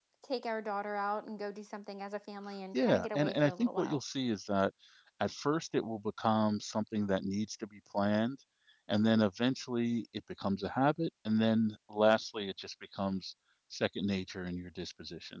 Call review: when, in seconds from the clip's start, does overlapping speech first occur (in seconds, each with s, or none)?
2.7 s